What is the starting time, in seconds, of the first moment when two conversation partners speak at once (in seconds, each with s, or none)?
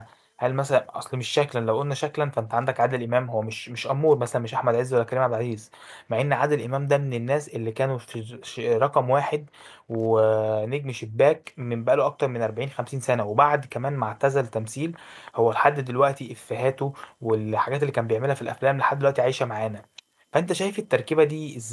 none